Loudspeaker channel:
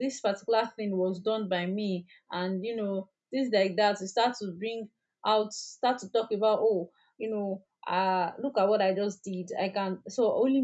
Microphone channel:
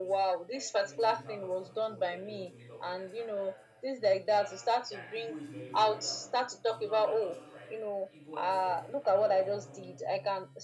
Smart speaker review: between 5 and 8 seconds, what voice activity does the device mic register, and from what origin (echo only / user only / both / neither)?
both